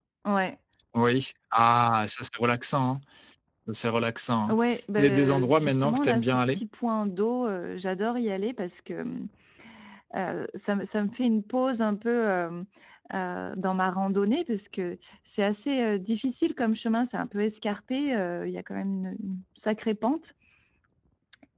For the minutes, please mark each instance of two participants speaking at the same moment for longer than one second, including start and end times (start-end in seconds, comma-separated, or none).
5.0-6.6